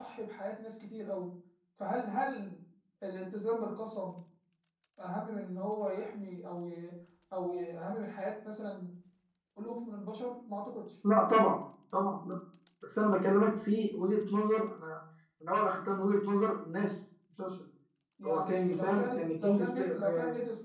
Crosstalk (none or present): present